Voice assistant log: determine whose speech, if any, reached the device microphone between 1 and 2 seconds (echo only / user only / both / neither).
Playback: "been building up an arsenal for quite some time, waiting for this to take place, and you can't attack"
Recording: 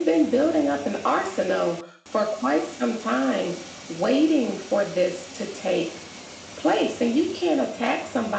echo only